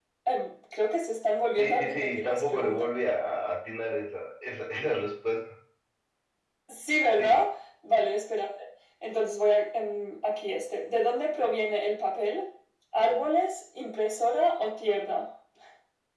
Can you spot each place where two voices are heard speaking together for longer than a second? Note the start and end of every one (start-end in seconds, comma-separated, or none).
1.6-2.9